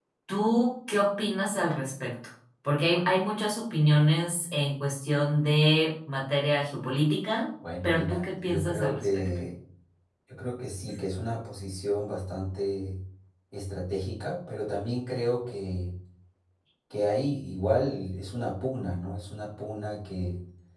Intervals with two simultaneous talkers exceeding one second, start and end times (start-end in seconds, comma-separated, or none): 7.8-9.3